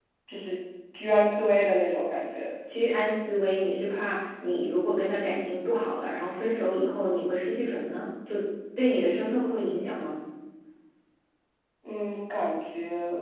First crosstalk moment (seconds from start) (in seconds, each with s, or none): none